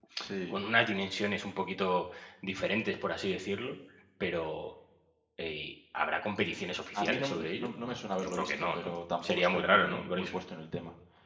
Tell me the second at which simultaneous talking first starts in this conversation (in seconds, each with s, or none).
6.9 s